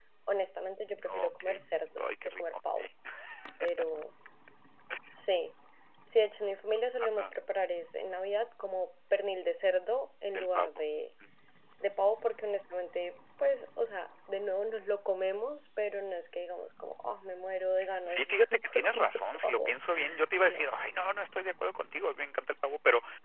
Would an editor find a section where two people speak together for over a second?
Yes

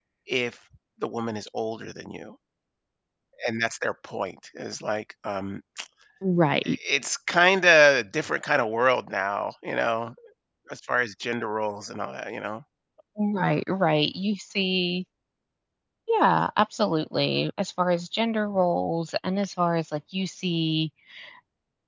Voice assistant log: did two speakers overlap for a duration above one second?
No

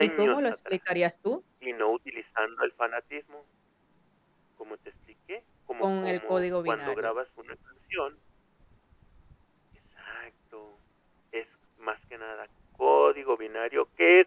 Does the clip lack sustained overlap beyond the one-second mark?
No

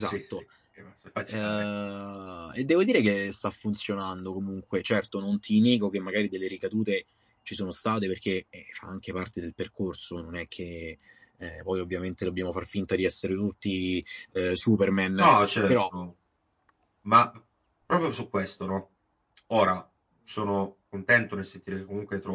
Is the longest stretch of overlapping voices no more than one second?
Yes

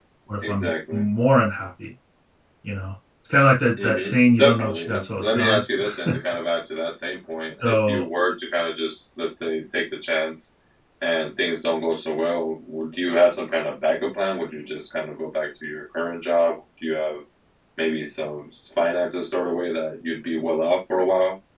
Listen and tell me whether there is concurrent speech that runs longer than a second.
Yes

